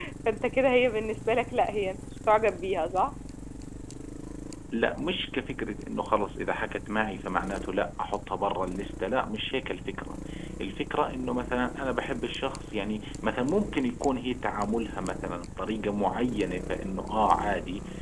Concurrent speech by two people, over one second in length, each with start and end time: none

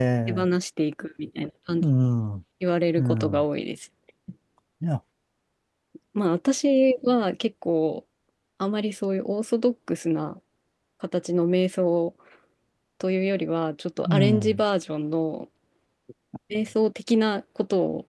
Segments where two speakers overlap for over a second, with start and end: none

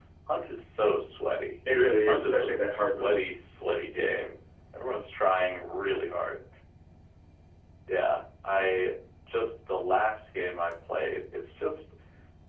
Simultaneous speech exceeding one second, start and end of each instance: 2.1-3.3

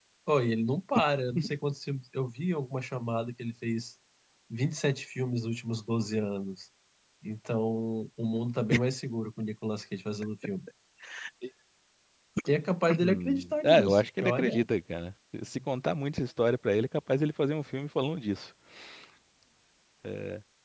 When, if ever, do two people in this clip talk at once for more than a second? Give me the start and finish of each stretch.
13.0-14.7

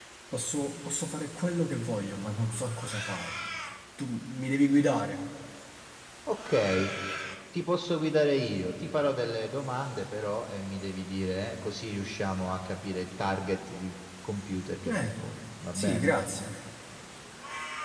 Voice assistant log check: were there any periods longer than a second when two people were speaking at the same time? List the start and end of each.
none

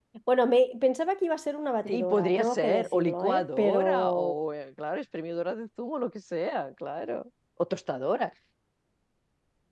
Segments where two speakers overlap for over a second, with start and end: 1.9-4.4

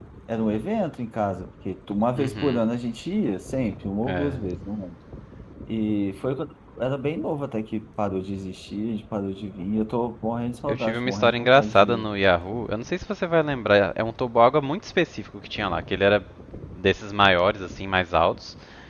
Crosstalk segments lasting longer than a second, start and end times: 10.7-12.1

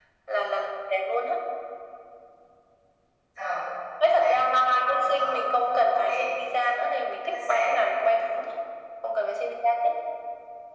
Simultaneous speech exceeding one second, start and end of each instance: 4.0-5.3

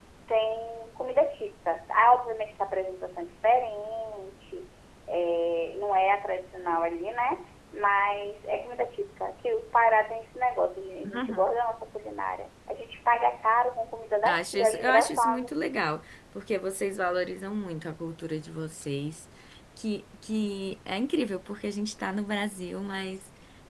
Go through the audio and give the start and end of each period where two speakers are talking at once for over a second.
14.2-15.6

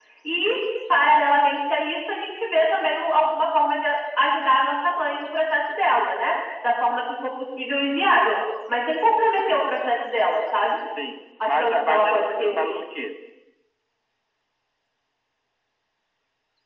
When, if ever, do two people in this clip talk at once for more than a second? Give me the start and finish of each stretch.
11.4-12.8

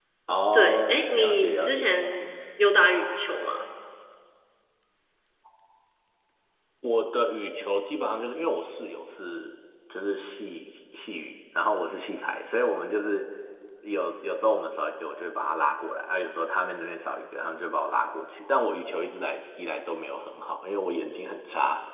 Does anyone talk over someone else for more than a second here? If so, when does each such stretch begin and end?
0.5-1.8

